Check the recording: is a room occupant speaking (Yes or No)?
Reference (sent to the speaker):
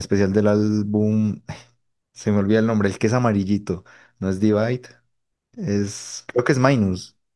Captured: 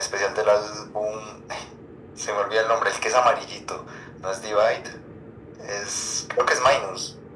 No